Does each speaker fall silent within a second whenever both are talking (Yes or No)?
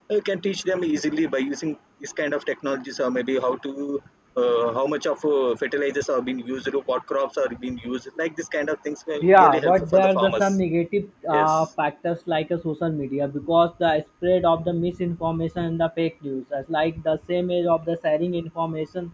No